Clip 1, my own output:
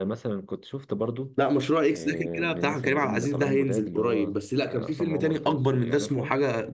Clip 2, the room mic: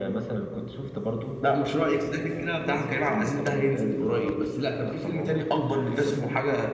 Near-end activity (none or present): none